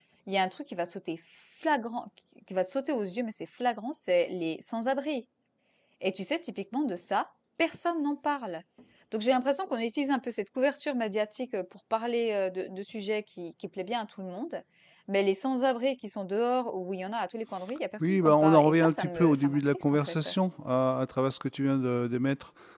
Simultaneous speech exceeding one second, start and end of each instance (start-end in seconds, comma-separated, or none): 18.0-20.3